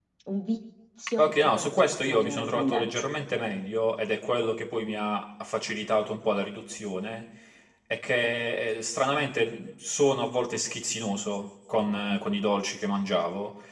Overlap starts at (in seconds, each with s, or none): 1.2 s